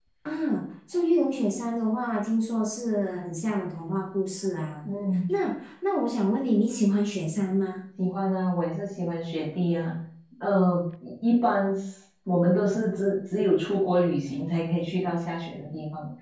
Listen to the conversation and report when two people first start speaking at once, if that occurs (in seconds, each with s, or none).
none